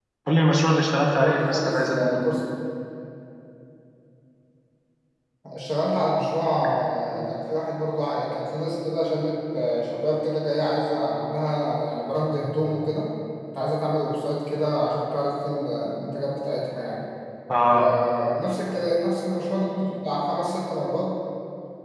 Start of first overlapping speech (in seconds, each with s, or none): 1.0 s